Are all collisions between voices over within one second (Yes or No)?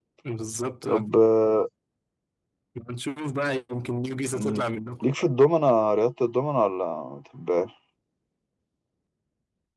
Yes